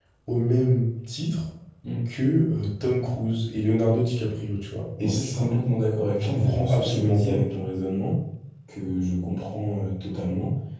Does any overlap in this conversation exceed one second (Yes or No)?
Yes